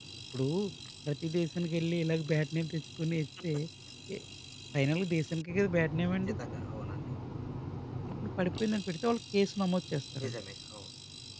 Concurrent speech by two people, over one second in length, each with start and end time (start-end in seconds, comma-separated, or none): none